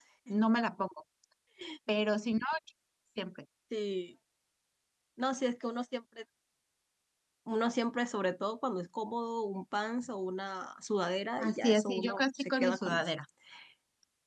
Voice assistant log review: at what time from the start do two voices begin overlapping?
11.4 s

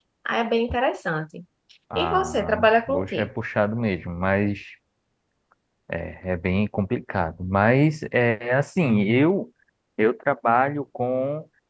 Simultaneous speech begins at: 1.9 s

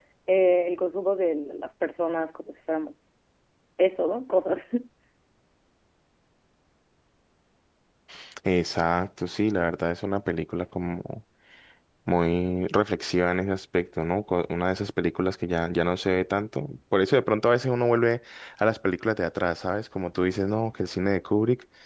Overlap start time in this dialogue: none

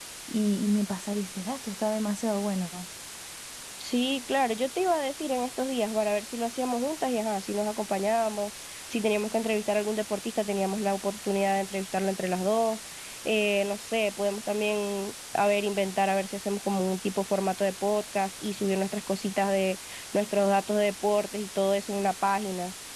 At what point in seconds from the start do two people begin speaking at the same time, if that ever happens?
none

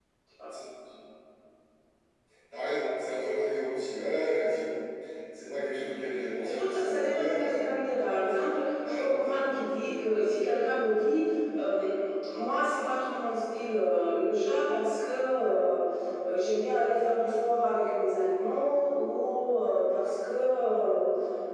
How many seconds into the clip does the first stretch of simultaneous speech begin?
6.4 s

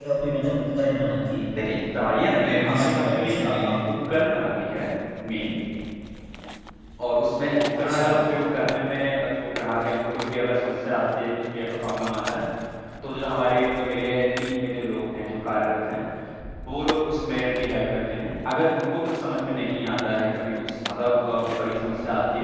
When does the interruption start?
2.4 s

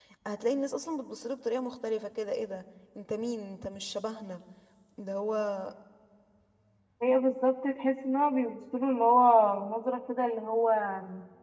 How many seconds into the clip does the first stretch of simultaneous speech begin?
none

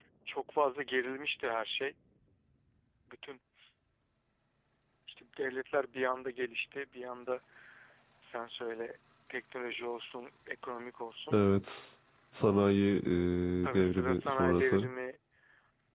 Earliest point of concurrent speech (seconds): 13.7 s

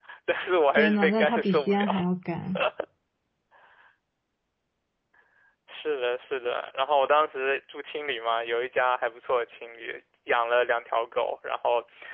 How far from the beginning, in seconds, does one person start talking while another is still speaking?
0.8 s

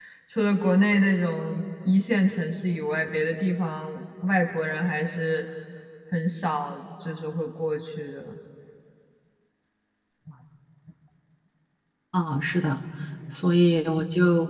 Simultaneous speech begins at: none

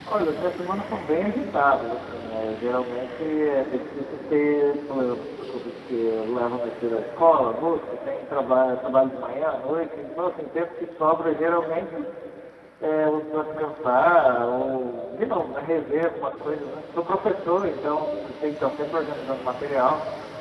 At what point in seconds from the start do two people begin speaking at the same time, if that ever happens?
none

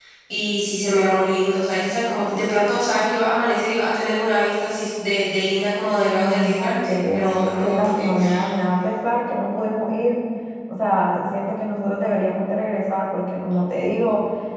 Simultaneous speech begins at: 6.0 s

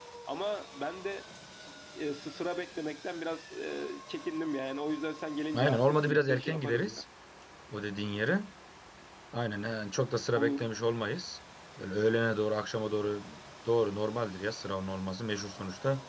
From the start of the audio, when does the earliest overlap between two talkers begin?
5.5 s

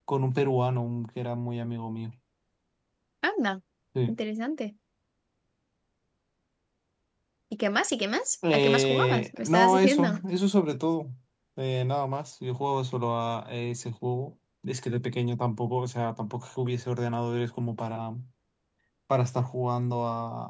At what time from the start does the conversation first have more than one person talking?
8.4 s

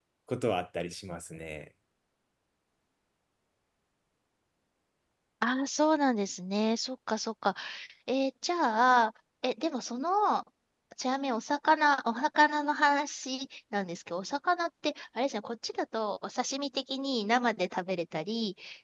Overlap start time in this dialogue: none

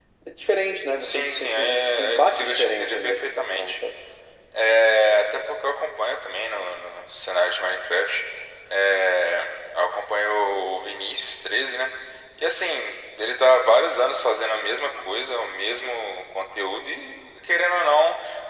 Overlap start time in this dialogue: 1.0 s

